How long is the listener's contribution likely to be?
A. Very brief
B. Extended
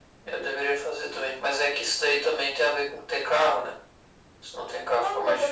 B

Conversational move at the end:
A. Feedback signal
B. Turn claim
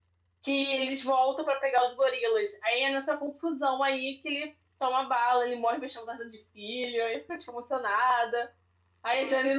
A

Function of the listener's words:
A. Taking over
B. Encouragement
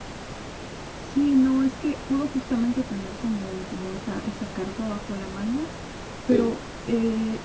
B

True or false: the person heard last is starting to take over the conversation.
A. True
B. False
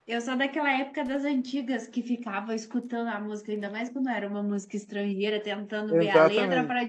B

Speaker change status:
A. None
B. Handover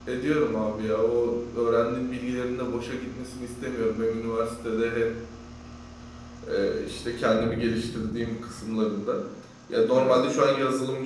A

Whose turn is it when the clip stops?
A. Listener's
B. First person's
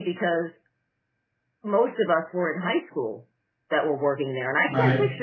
B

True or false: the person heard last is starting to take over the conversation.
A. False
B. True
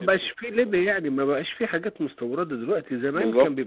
A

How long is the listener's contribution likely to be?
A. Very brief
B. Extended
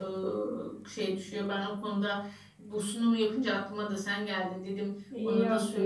B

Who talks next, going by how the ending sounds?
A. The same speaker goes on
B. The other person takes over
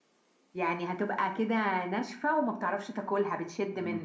B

